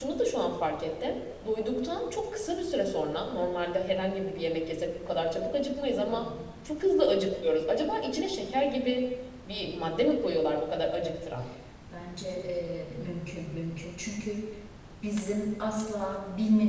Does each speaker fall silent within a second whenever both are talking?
Yes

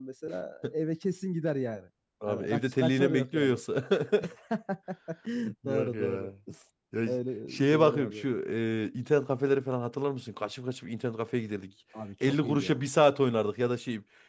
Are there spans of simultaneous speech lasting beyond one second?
Yes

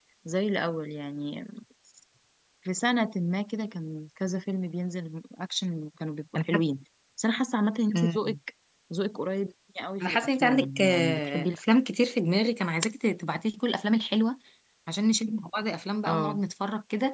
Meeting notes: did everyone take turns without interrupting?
No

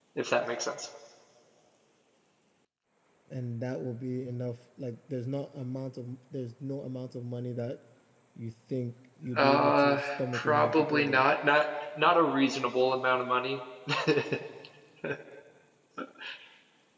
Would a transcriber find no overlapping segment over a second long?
No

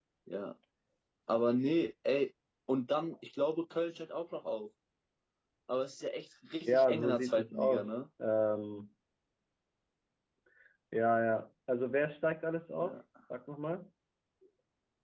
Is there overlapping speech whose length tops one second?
Yes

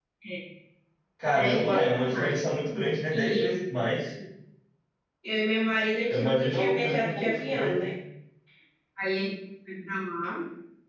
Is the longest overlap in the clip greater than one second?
Yes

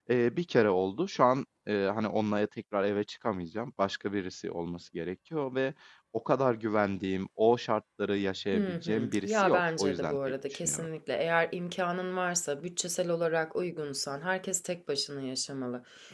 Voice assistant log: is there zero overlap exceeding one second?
No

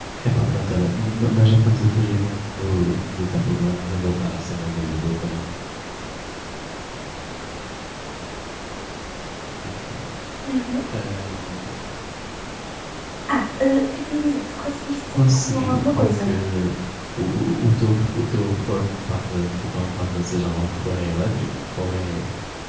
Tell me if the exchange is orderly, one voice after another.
No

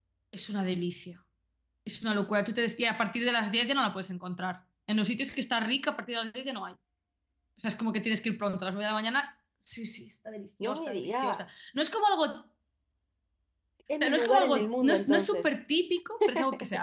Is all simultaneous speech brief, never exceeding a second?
No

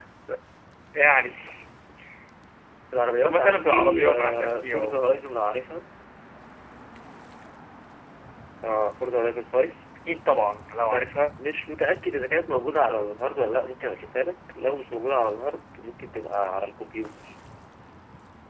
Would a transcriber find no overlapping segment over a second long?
No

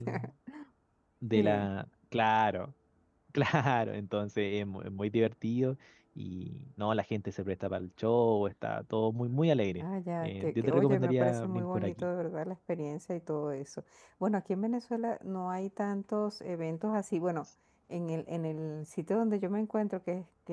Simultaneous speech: Yes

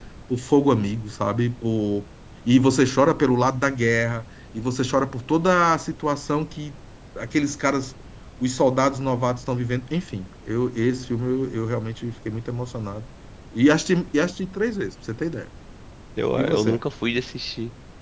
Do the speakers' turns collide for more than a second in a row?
No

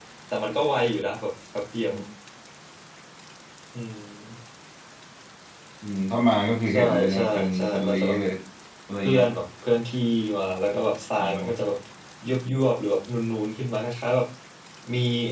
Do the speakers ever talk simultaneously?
Yes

